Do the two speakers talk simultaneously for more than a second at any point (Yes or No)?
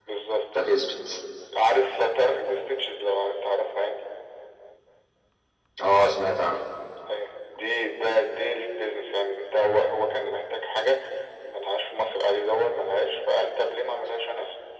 No